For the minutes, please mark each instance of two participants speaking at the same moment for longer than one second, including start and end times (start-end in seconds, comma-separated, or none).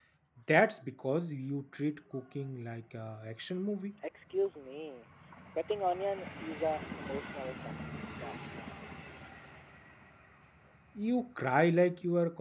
none